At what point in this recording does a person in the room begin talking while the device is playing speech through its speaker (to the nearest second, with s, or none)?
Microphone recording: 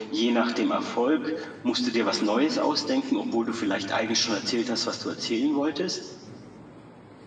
none